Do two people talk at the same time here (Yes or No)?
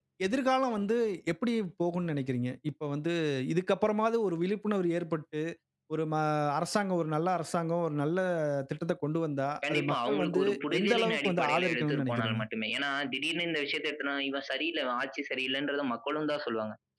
Yes